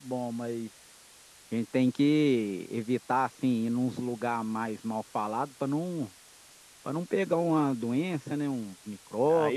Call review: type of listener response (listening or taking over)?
taking over